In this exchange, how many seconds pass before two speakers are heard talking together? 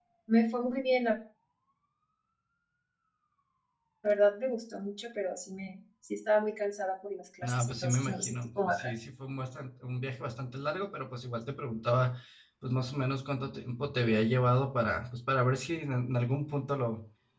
7.4 s

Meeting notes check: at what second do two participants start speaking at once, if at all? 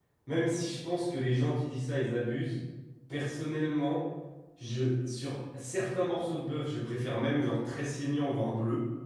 none

